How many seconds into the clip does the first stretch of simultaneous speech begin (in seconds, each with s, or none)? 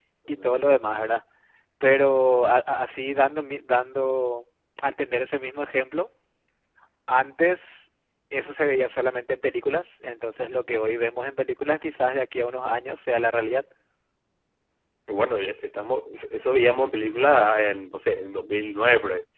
none